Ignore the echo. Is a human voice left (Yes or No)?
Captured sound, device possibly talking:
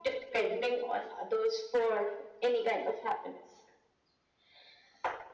No